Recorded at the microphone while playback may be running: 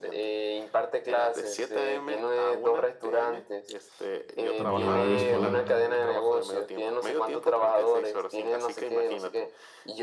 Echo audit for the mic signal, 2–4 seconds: echo only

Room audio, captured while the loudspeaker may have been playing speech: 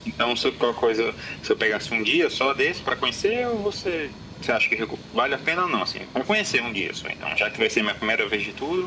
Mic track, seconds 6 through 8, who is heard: echo only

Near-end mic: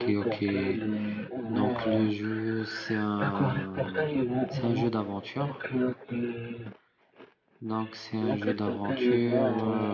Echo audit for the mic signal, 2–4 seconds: both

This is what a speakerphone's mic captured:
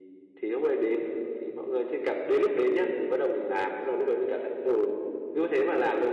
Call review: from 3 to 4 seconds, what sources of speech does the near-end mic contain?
echo only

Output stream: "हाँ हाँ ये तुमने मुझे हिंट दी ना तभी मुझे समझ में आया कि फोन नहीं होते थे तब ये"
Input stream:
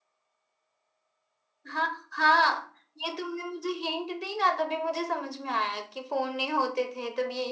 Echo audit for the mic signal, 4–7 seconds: echo only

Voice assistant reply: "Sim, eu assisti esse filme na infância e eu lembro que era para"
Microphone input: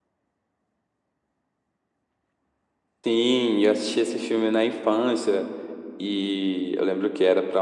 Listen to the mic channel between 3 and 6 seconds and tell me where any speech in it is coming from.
echo only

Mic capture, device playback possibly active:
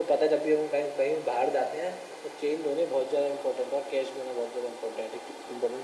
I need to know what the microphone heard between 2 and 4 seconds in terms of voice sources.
echo only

